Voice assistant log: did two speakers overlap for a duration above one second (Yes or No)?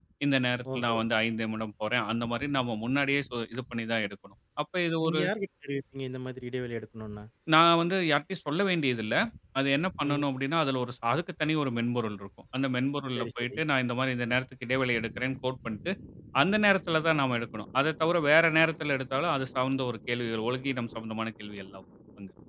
No